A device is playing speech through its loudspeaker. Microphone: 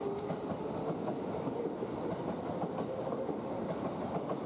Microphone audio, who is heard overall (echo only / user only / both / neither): neither